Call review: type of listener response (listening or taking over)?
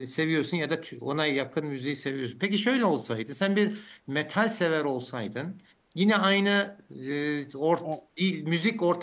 listening